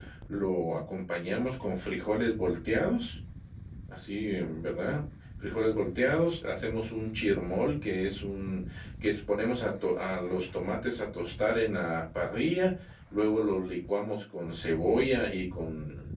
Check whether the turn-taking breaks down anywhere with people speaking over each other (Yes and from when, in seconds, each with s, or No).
No